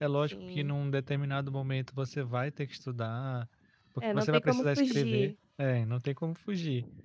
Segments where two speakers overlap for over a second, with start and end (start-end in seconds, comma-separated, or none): 4.1-5.3